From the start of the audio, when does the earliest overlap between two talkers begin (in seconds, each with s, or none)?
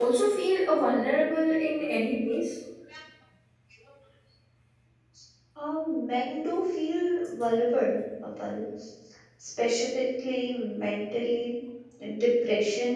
none